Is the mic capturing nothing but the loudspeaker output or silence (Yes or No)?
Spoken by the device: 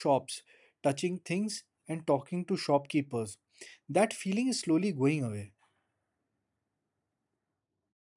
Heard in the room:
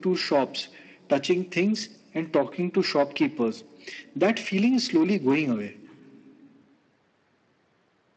Yes